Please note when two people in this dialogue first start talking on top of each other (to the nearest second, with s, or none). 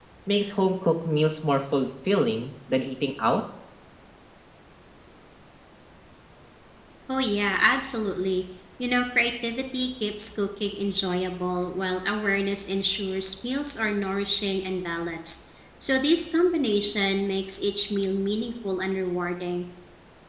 none